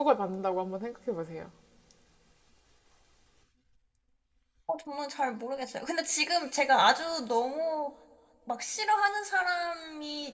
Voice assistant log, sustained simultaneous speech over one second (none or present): none